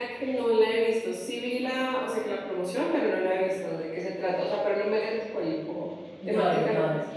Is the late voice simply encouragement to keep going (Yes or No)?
No